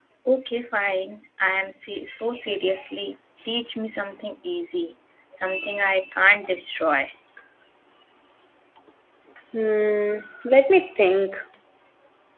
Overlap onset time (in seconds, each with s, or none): none